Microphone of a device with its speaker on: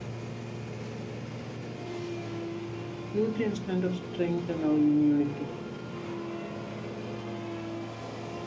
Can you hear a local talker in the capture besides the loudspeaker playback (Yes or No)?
Yes